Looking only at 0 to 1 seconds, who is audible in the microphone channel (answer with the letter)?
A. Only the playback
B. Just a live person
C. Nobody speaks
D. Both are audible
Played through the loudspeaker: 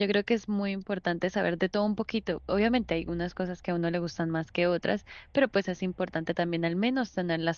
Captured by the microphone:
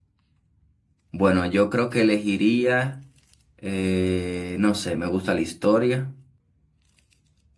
C